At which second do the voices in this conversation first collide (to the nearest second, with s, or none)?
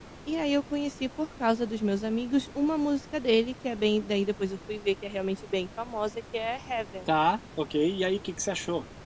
none